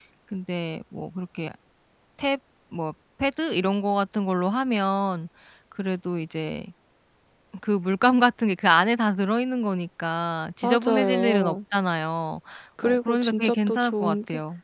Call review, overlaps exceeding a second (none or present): present